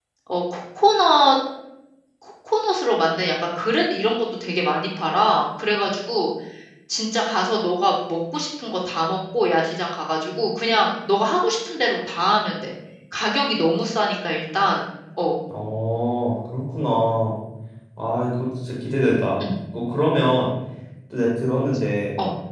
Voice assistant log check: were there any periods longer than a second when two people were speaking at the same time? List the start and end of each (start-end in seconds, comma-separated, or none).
none